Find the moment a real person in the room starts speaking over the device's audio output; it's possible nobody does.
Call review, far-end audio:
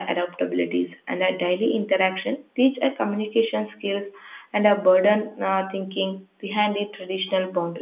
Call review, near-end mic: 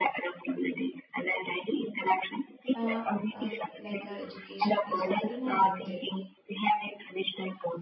3 s

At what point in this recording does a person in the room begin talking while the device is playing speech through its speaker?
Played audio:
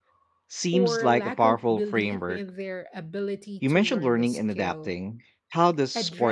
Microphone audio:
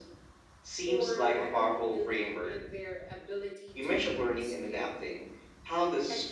none

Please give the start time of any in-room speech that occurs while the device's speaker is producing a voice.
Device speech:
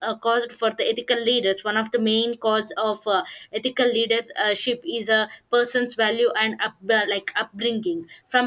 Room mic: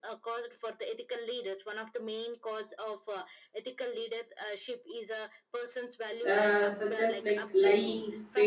6 s

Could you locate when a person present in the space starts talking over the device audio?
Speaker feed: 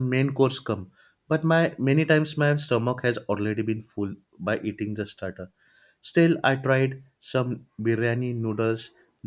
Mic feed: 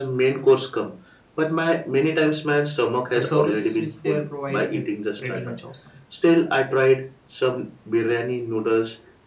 3 s

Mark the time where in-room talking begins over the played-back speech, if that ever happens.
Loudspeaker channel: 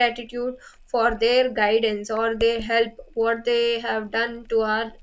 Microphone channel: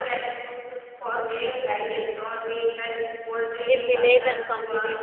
4 s

